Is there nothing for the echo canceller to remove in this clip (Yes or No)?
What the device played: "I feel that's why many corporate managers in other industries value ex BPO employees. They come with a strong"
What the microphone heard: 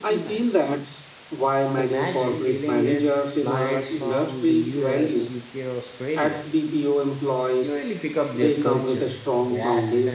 No